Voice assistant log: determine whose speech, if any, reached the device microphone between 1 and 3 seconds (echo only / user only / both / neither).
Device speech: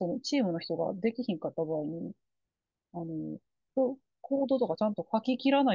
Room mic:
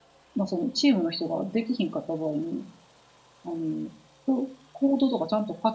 echo only